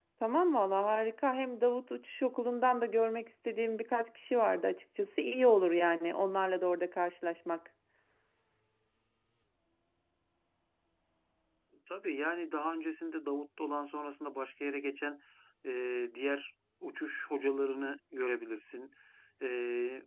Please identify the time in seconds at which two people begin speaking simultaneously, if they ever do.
none

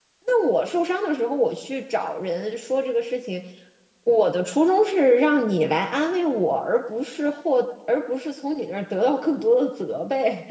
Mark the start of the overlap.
none

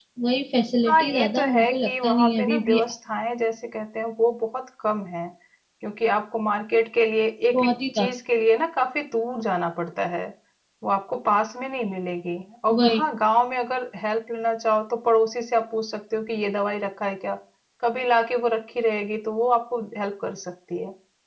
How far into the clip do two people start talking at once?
0.9 s

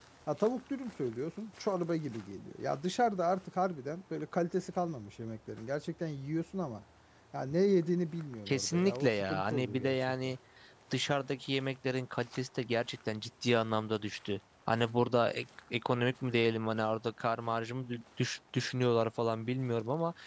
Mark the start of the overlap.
8.5 s

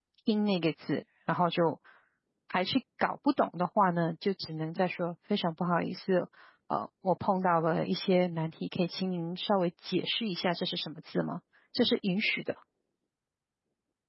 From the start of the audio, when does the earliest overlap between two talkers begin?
none

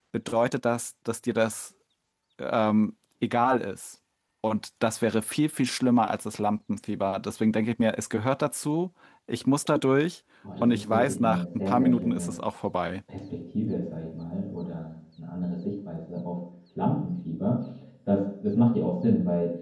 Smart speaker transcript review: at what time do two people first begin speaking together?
10.4 s

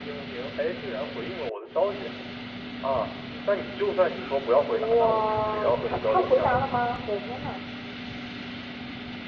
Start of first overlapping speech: 4.7 s

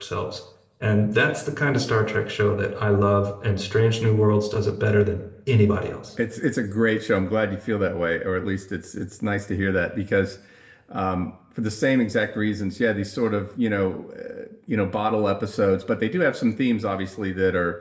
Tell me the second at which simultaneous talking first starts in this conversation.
none

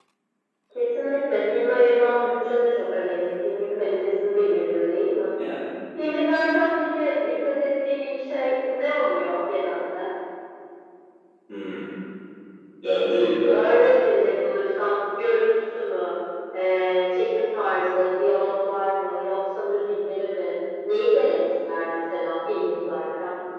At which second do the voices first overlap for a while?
none

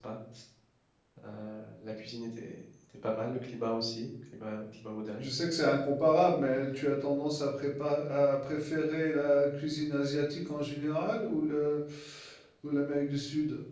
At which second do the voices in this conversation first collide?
none

